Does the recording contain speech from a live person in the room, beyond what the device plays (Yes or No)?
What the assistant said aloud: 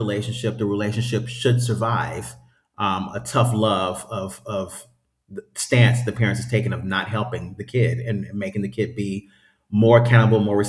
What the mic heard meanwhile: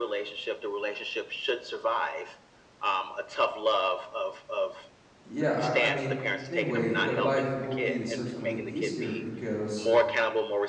Yes